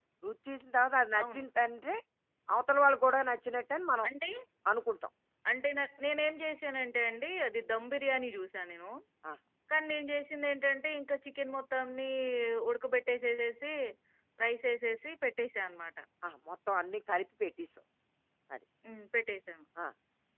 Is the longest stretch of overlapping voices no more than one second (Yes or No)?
Yes